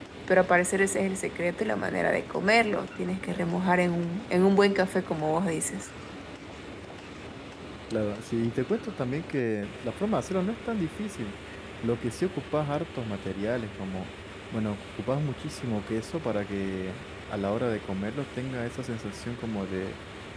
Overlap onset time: none

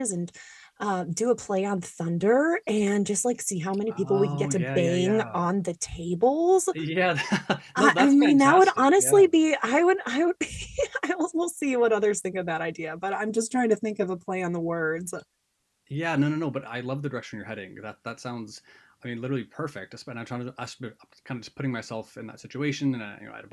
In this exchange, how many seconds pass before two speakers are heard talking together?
3.9 s

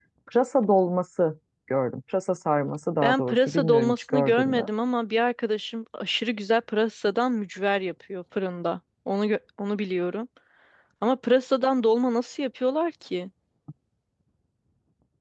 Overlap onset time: 3.0 s

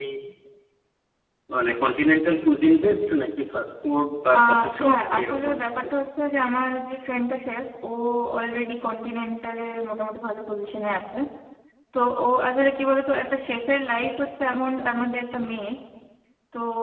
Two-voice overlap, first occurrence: 4.3 s

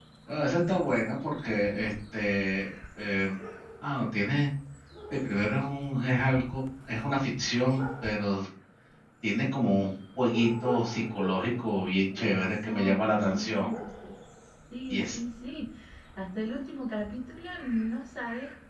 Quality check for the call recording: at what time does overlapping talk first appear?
12.2 s

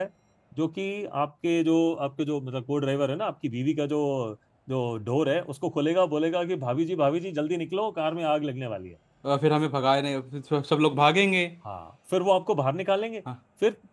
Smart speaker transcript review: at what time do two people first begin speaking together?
none

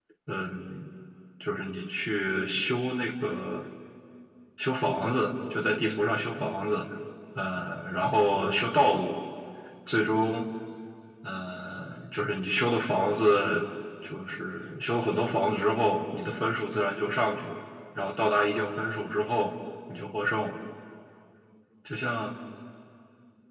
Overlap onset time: none

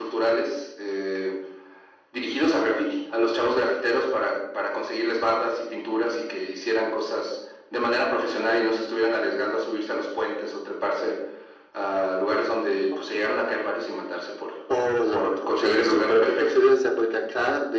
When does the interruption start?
15.1 s

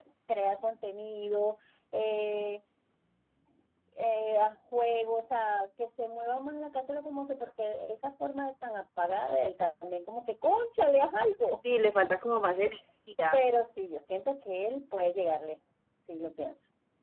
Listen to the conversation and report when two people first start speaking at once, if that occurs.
none

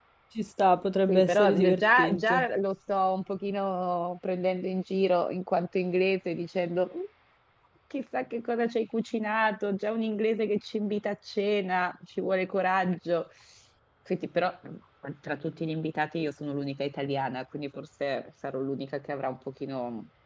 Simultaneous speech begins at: 1.1 s

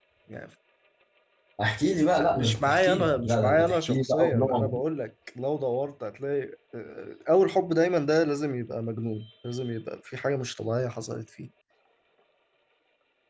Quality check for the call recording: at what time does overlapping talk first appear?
2.2 s

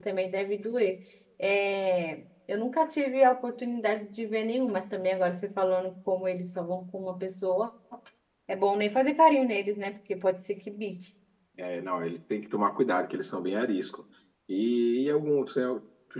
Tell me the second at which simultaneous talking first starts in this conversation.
none

